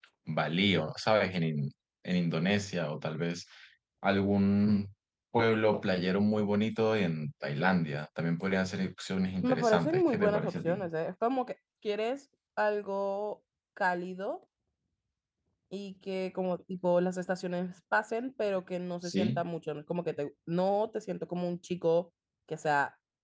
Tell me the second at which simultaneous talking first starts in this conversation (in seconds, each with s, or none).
9.4 s